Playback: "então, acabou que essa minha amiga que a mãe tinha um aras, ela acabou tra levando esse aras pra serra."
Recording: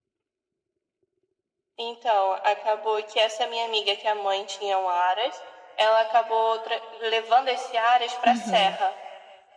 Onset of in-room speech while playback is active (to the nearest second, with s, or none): 8 s